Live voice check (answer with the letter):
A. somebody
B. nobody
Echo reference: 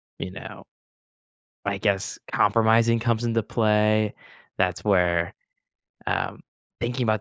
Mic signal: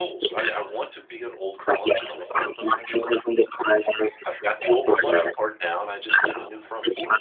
A